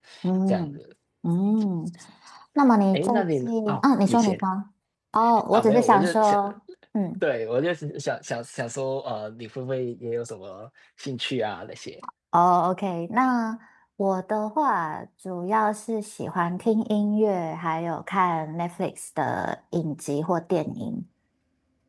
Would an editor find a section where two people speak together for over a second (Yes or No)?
Yes